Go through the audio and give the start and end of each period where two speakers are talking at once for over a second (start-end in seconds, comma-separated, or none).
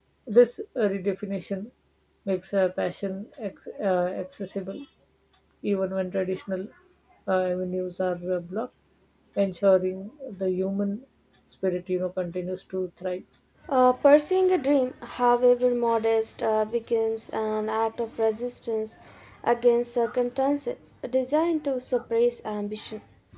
none